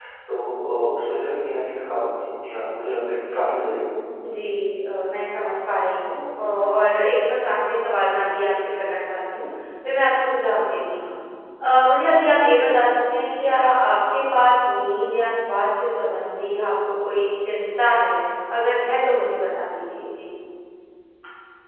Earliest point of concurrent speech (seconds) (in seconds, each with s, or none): none